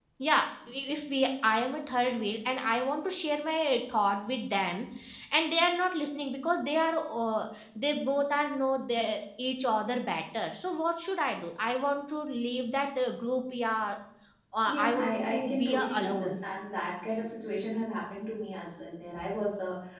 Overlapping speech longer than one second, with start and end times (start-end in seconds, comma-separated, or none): 14.7-16.4